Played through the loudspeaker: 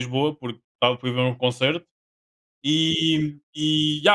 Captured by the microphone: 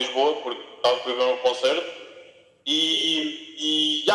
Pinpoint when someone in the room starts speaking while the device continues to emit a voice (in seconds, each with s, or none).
none